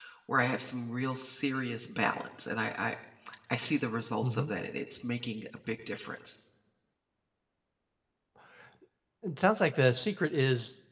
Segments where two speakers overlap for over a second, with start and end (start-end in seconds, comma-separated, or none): none